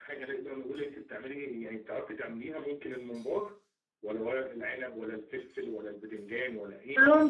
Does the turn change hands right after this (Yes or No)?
Yes